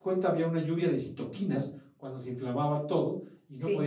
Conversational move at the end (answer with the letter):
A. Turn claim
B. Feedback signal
B